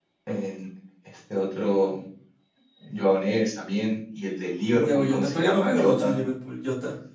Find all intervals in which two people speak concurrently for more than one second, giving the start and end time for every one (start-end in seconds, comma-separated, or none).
4.7-6.2